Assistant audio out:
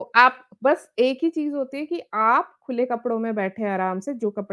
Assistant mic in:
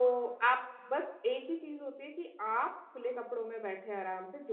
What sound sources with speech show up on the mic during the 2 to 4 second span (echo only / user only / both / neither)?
echo only